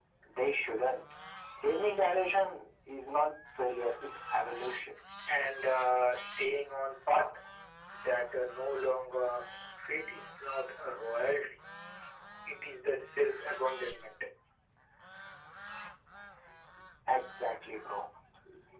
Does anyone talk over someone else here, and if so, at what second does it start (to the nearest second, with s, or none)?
none